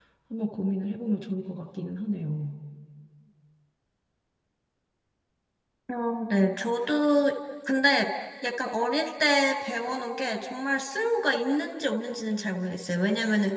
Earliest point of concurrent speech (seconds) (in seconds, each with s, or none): none